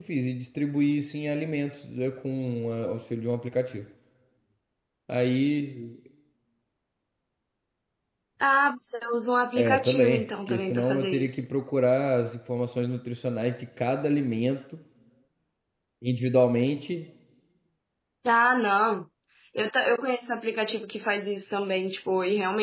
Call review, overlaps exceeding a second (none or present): present